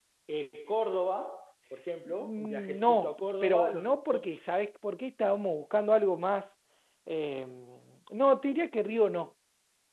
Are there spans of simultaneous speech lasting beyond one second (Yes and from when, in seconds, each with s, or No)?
Yes, from 2.2 s